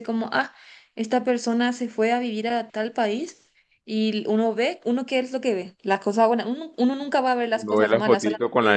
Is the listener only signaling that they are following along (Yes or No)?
No